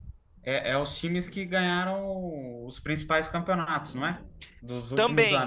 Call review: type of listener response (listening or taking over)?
taking over